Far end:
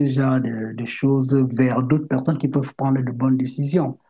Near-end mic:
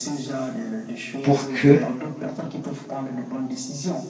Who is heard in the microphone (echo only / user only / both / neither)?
both